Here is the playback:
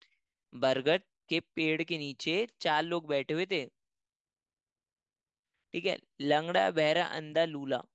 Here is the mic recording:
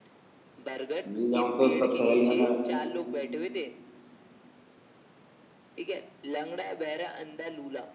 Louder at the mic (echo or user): user